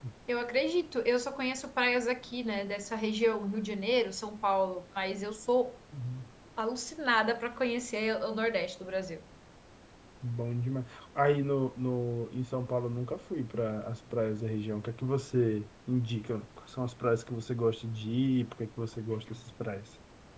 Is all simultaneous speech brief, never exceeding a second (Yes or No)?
Yes